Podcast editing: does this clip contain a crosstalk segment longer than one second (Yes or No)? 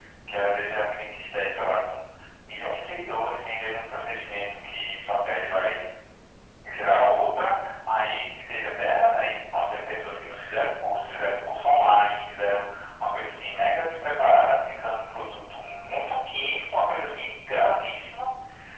No